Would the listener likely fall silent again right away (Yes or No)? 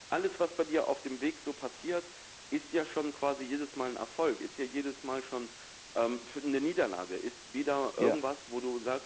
Yes